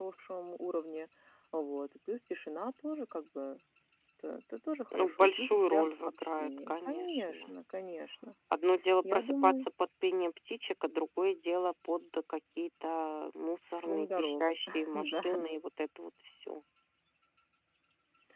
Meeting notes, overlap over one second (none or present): present